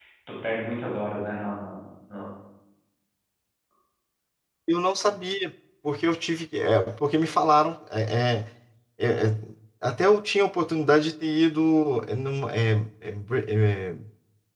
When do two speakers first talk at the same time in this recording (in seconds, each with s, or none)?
none